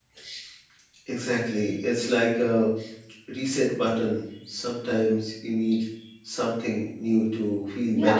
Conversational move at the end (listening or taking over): taking over